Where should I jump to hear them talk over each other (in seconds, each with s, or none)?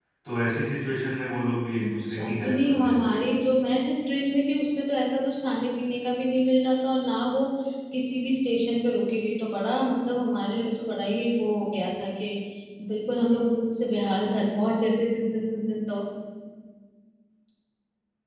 1.8 s